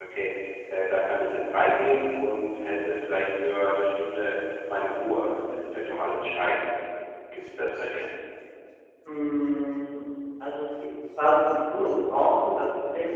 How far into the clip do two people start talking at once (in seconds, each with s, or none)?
none